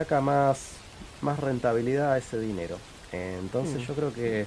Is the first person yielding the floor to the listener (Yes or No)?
No